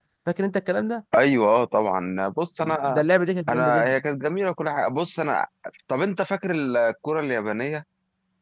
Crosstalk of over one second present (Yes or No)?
No